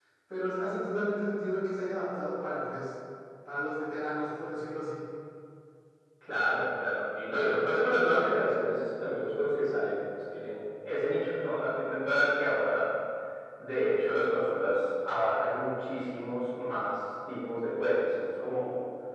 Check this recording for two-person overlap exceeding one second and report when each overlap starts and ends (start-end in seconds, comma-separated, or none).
none